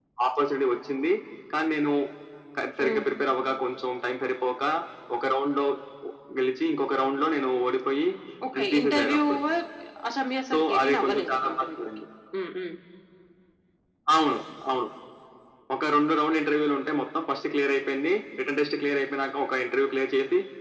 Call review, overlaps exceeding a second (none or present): present